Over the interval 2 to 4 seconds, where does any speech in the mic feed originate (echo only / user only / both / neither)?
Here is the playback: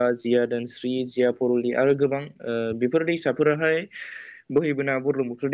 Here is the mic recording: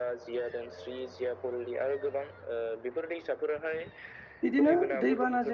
echo only